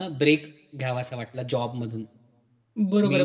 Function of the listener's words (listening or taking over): taking over